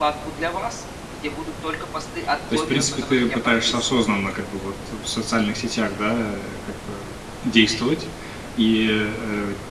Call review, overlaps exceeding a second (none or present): present